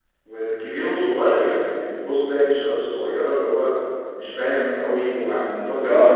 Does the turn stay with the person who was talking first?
No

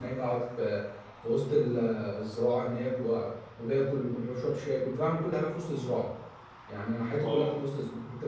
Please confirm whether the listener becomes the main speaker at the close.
No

